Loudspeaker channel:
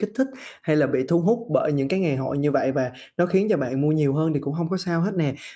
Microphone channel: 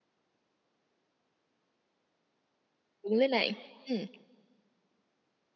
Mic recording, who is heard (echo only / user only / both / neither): user only